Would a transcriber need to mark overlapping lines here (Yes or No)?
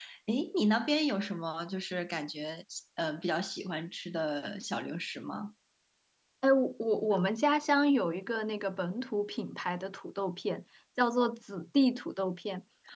No